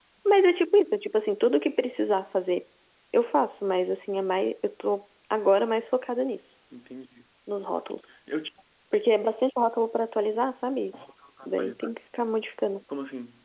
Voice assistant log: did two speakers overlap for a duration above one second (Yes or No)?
No